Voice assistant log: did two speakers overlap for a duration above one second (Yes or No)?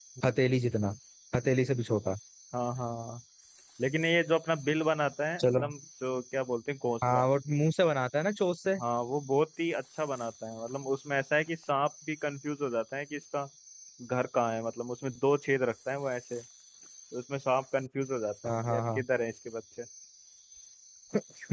No